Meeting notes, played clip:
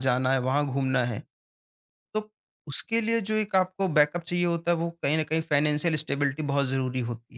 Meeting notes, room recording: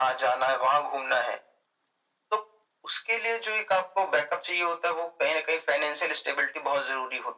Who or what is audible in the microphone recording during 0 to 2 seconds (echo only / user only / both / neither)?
echo only